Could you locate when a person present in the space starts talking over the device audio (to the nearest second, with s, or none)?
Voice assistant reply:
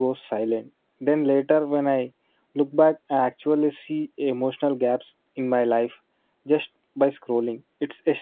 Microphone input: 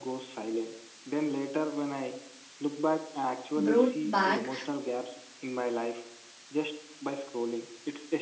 4 s